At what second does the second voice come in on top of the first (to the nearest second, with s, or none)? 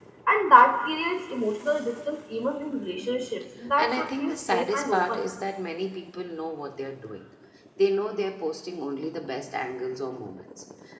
4 s